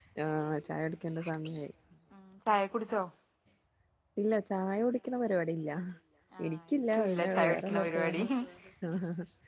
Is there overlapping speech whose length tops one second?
Yes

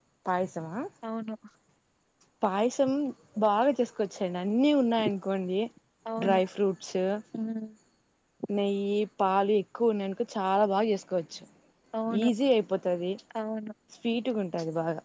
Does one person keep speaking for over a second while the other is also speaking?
No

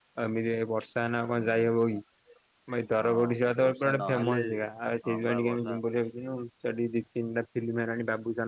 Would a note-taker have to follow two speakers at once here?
Yes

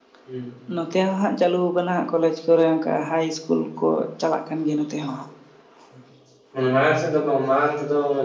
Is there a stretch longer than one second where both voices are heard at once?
No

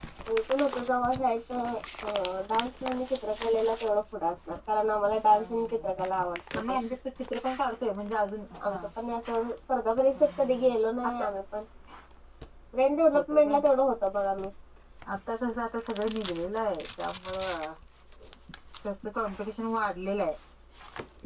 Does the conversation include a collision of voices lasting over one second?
No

